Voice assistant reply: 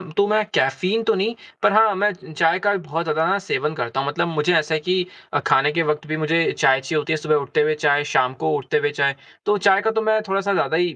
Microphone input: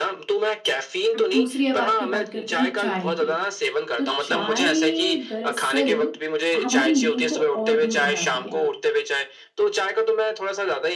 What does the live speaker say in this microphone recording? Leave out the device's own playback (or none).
अब दूसरी अब आपकी बात करते हैं चाय की। तो चाय दरअसल हमारी नींद को और दूर भगाती है।